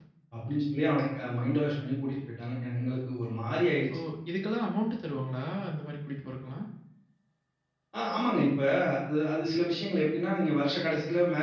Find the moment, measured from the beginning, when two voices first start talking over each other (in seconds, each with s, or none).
none